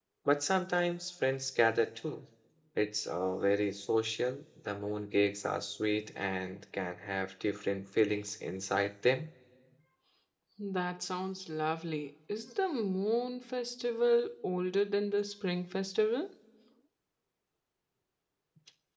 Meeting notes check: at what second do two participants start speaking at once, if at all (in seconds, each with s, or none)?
none